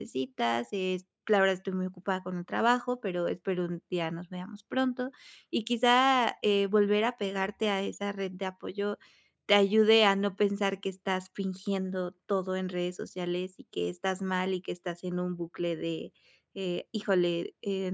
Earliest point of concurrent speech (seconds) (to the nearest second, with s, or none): none